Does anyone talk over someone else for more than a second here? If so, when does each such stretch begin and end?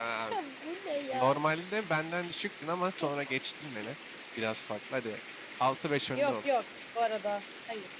none

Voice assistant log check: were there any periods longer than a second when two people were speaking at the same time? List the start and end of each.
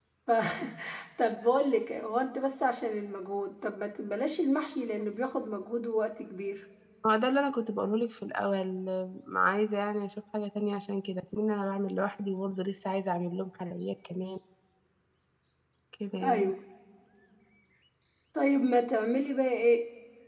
none

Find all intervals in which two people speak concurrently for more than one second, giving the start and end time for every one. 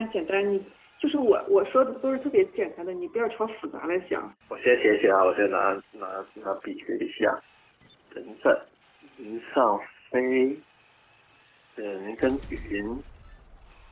none

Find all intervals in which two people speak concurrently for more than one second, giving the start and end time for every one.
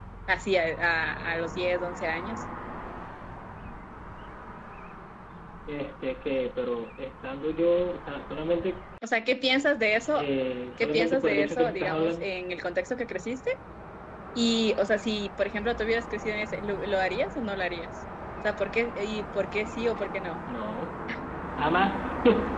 10.8-12.3

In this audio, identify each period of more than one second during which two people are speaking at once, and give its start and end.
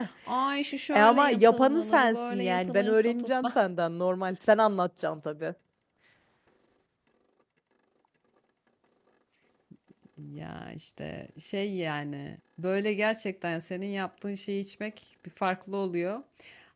0.9-3.3

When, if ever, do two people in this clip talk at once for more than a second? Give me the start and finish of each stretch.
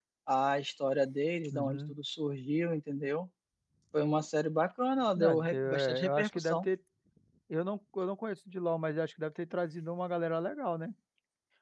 5.2-6.7

